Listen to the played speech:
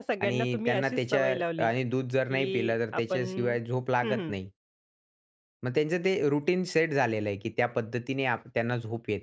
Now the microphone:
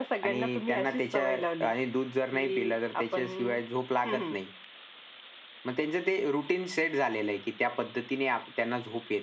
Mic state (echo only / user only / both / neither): echo only